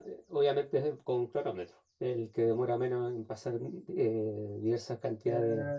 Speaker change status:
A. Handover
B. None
A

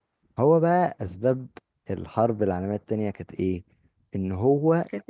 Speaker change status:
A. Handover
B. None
B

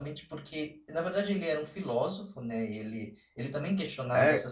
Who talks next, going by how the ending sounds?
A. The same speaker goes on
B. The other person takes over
B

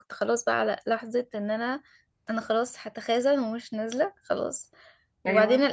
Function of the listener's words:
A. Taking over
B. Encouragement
B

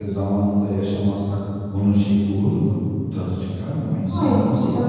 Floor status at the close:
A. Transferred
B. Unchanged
A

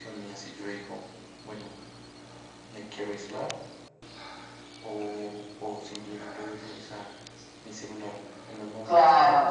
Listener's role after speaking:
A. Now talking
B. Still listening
A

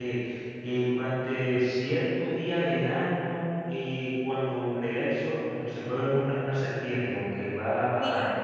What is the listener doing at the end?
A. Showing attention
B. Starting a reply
B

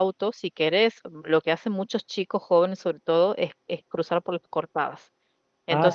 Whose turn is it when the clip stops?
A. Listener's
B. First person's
B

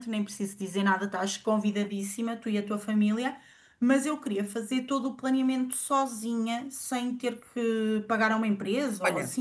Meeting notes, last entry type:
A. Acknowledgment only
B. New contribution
B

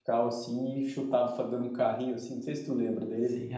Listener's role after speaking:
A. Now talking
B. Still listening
A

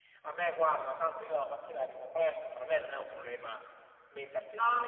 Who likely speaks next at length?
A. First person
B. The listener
B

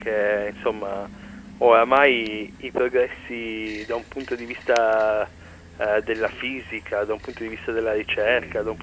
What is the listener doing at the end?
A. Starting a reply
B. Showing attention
B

